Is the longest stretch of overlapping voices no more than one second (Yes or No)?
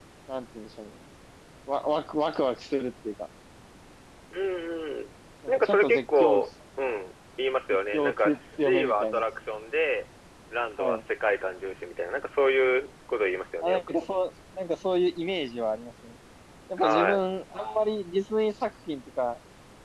No